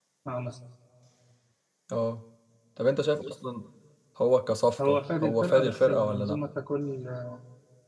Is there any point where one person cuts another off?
Yes, from 4.8 s

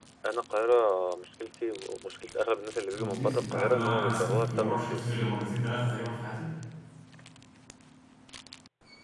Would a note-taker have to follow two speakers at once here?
Yes, from 2.9 s

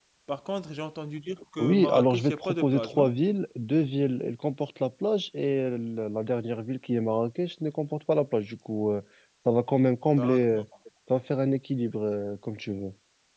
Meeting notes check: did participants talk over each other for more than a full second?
Yes, from 1.6 s

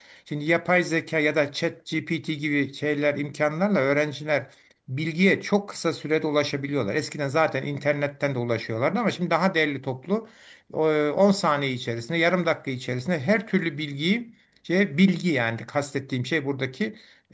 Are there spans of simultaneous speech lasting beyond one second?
No

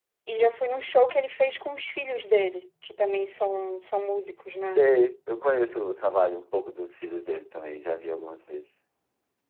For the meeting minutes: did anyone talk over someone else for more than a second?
No

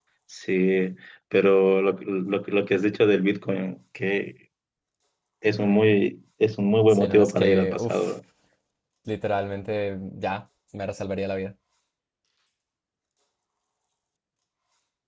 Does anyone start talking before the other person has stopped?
Yes, from 6.9 s

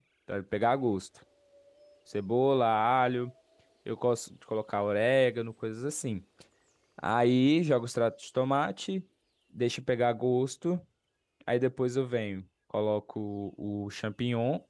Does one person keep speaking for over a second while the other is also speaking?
No

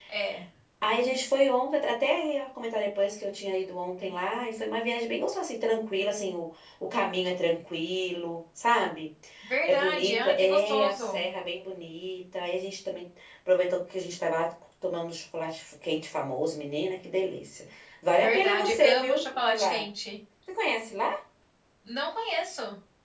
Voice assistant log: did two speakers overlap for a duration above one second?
Yes, from 9.7 s

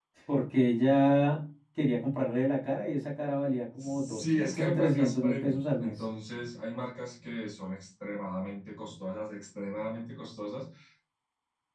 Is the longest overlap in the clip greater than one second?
Yes, from 3.8 s

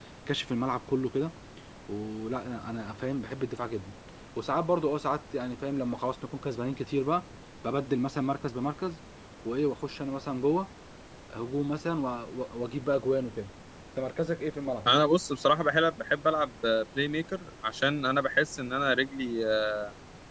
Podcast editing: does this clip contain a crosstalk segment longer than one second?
No

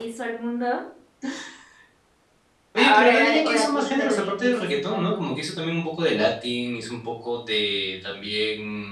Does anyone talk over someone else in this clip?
Yes, from 2.8 s

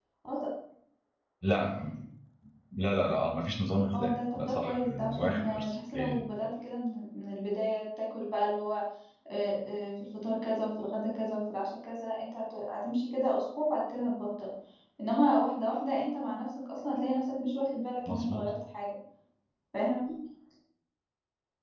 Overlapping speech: Yes, from 3.9 s

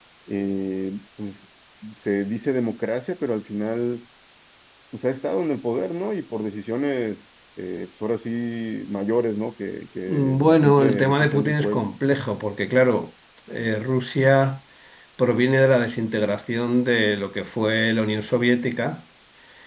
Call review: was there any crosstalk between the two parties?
Yes, from 10.1 s

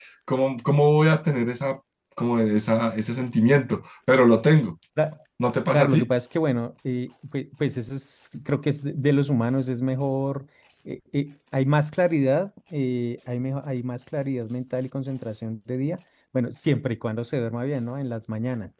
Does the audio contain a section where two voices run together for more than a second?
No

